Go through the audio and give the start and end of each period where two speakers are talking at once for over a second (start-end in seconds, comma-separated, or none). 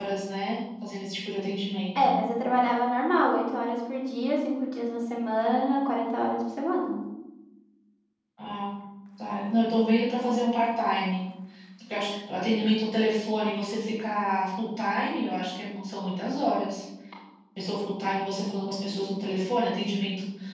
none